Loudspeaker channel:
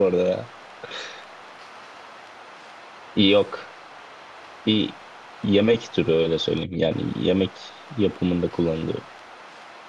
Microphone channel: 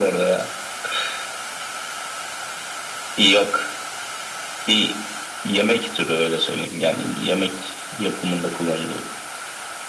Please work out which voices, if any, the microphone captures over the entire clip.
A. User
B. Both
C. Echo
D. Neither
C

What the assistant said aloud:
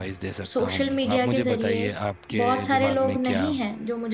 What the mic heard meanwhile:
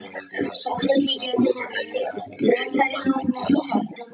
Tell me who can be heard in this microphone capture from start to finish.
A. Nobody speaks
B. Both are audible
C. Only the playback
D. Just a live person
C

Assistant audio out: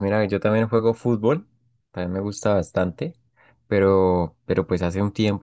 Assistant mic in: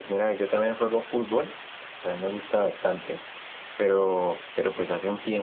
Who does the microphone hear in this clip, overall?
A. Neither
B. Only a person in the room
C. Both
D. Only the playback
D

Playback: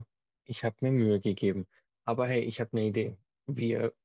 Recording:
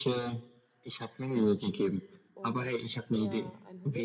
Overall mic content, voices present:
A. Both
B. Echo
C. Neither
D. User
A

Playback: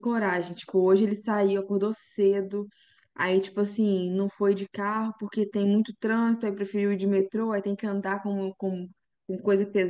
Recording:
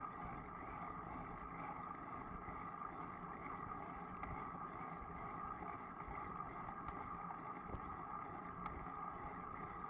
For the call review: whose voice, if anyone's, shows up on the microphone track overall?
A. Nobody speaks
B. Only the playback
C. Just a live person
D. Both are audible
A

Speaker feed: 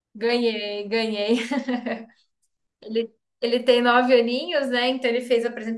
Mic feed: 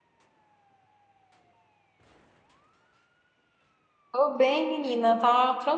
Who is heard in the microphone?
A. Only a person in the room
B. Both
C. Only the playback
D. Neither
A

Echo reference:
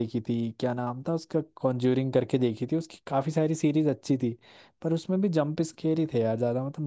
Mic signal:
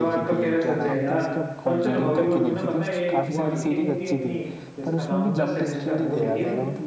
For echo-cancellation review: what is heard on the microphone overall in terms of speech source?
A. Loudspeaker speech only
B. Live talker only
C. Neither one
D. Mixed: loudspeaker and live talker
D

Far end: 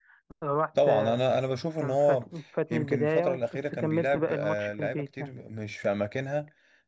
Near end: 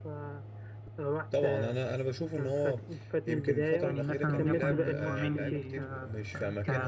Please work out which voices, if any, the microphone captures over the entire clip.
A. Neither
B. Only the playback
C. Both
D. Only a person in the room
C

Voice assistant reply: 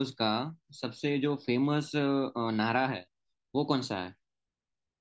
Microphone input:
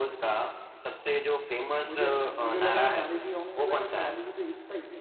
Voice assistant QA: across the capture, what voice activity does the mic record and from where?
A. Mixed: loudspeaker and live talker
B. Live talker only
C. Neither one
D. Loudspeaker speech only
A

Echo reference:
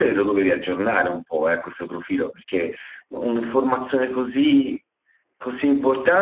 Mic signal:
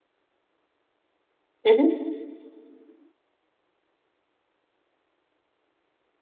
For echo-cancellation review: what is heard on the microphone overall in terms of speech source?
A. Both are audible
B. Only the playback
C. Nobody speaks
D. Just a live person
D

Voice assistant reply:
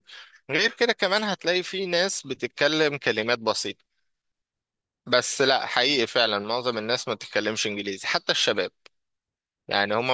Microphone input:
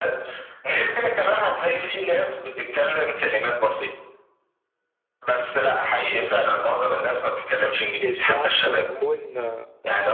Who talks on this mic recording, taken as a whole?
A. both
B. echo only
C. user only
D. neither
A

